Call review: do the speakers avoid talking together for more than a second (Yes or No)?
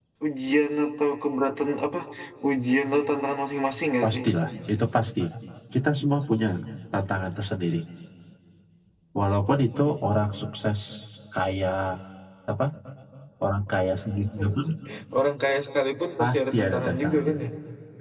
No